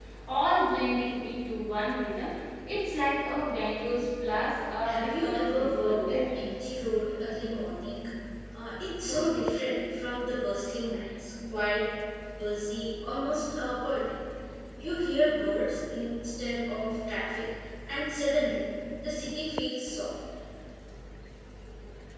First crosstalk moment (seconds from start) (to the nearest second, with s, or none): 5 s